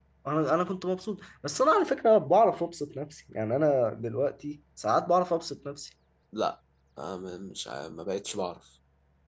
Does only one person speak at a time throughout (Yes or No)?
Yes